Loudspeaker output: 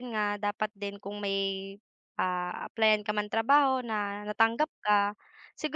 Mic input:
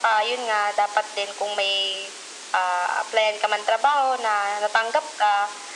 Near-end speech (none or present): none